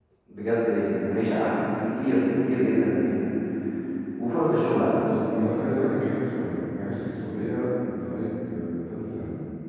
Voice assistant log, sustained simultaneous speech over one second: none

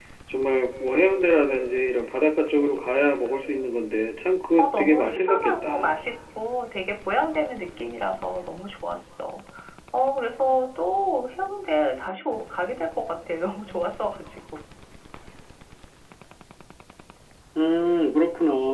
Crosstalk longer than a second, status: present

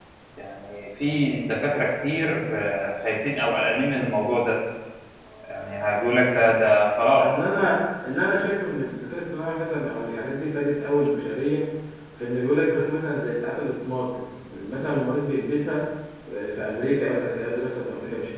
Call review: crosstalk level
none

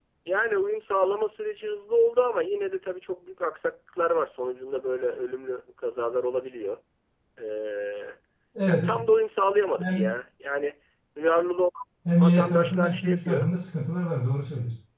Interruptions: present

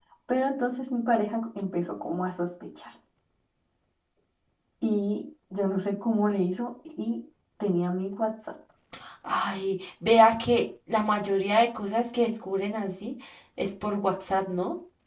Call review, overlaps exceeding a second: none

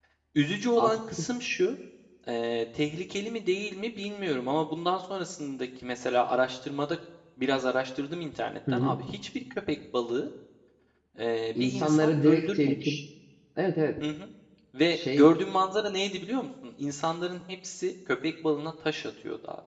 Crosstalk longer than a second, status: present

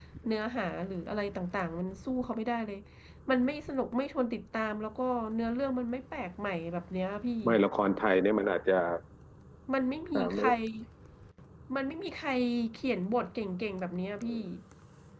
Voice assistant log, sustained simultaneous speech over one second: none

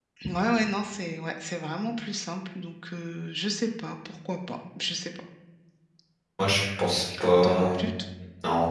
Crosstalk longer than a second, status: none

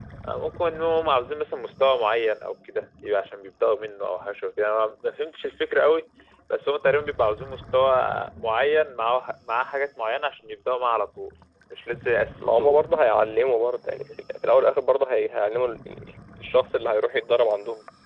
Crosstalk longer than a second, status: none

